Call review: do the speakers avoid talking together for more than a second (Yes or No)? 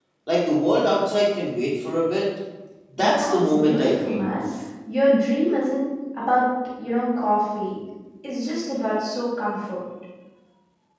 No